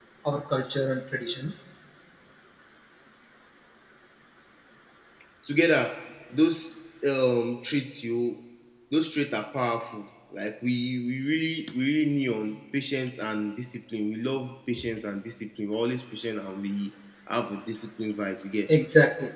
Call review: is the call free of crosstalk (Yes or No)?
Yes